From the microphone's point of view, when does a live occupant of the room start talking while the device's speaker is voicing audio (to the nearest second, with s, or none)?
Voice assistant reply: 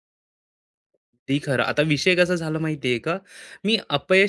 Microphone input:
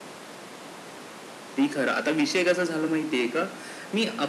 none